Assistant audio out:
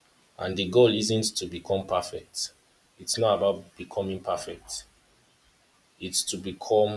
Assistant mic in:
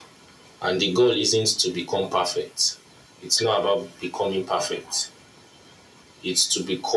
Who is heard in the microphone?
echo only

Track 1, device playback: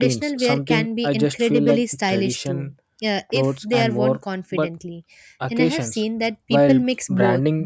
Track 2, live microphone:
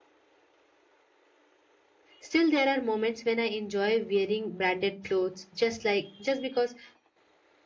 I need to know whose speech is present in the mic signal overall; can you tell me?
user only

